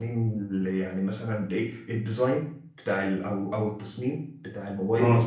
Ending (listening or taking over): listening